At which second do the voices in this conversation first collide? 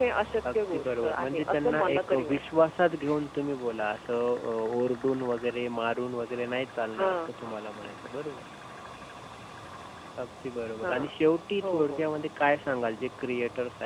0.5 s

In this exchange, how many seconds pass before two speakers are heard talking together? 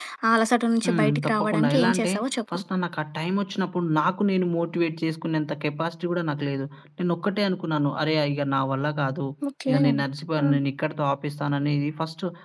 0.9 s

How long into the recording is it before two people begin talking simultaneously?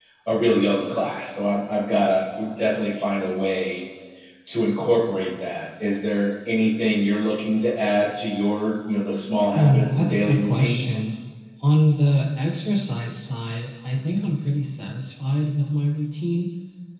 9.5 s

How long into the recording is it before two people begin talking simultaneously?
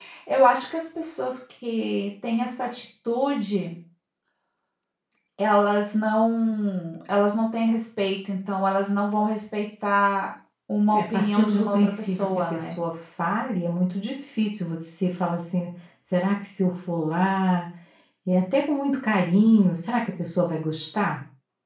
10.9 s

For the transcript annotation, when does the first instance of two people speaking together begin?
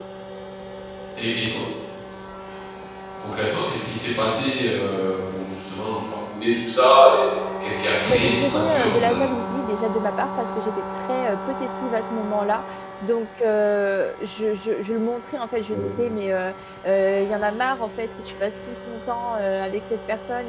8.0 s

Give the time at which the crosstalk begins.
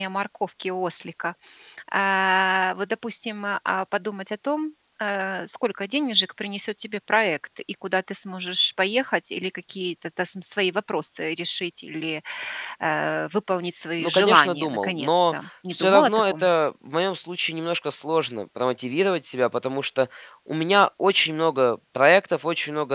14.0 s

